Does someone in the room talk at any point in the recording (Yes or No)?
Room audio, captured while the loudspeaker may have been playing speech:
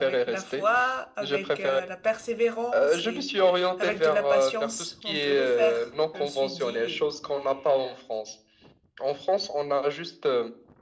No